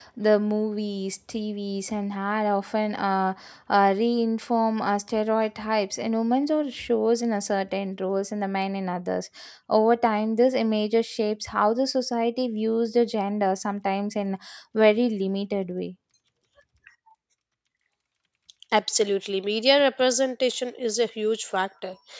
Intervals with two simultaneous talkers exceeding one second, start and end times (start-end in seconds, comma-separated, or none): none